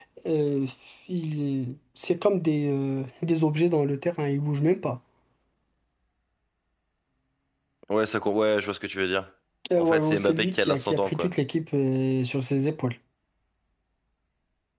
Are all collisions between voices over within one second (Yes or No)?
No